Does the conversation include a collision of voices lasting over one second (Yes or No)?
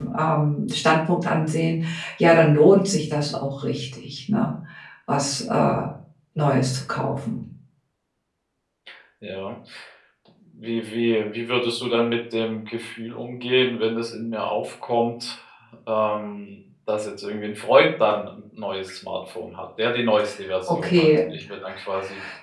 No